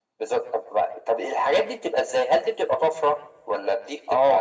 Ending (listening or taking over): taking over